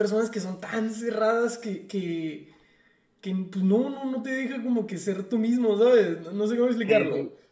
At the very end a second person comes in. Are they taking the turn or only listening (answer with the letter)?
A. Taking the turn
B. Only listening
A